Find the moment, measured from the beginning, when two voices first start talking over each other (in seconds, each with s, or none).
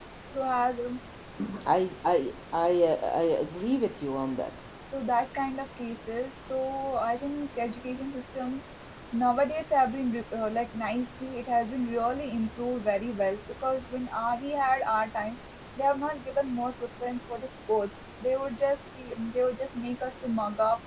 none